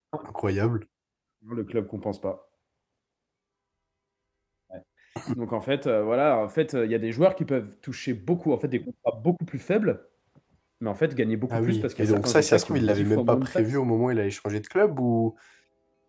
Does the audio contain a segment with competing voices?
Yes, from 11.5 s

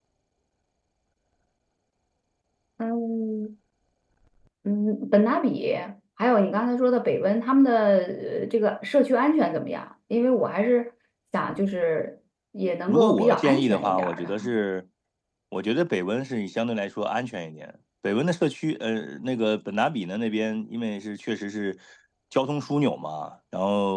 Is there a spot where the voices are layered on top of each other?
Yes, from 12.9 s

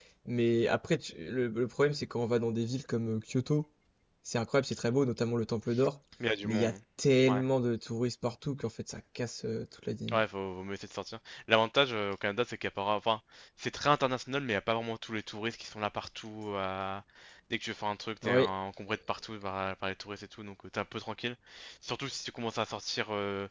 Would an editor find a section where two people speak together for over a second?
No

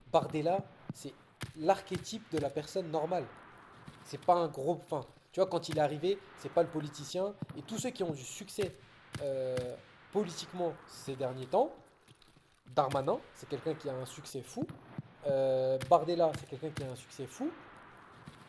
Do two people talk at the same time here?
No

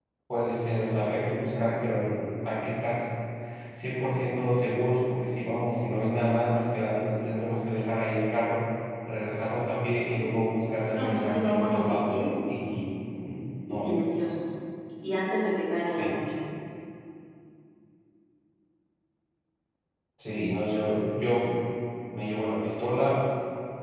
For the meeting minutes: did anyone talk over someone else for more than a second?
Yes, from 10.9 s

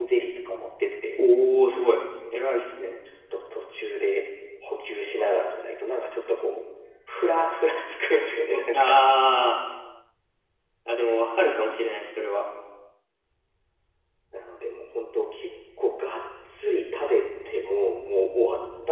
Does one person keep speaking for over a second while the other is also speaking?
No

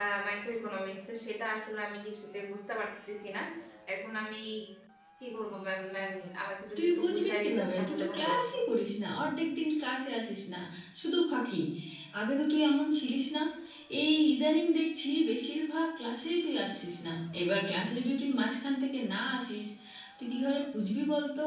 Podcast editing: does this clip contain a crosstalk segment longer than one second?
Yes, from 6.8 s

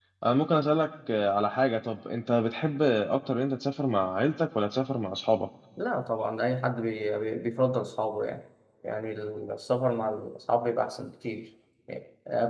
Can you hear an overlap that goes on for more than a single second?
No

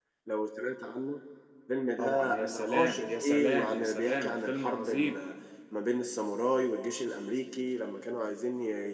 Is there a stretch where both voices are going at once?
Yes, from 2.0 s

